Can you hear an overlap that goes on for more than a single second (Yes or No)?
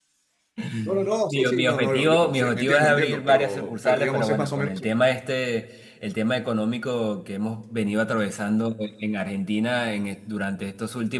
Yes